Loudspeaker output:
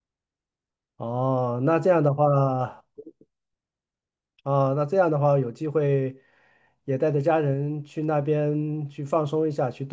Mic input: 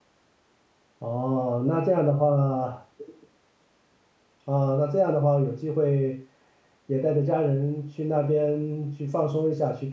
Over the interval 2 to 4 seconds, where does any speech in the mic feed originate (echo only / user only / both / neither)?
echo only